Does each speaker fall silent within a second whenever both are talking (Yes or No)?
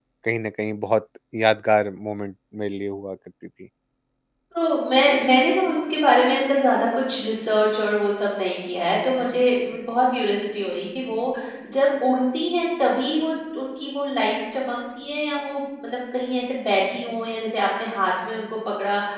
Yes